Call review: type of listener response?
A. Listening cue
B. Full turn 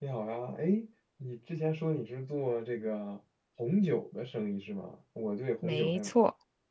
A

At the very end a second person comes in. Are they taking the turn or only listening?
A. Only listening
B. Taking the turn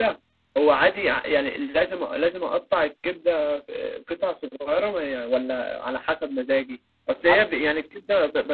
A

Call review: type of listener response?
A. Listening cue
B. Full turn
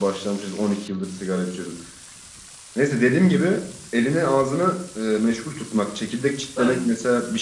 A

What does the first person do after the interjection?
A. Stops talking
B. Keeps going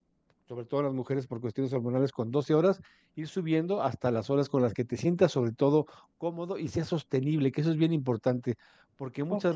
B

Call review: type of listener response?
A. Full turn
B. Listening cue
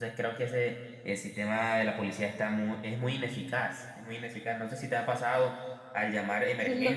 A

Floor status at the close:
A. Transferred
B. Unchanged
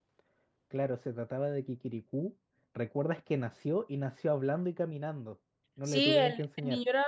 A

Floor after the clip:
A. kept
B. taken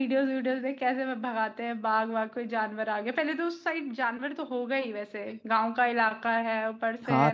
B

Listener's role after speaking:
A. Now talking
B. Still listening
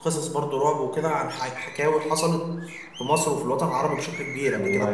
B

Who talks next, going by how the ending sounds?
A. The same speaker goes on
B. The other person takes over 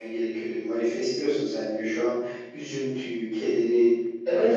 B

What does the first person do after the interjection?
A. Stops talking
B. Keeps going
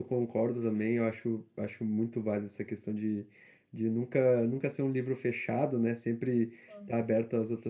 B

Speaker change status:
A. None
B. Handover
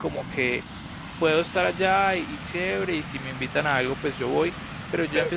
A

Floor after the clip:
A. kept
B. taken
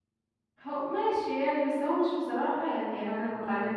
B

